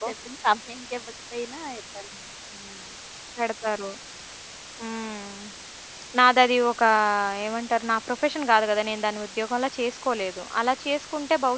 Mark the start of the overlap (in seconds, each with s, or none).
none